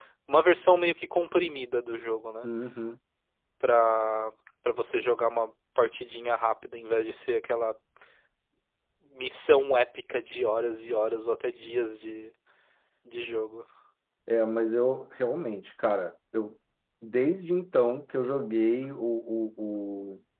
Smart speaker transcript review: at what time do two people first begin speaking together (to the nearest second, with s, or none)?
none